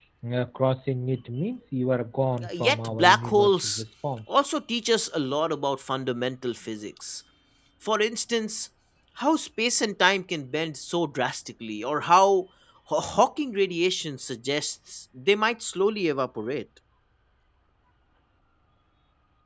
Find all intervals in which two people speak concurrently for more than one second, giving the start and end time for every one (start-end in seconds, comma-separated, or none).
2.6-3.8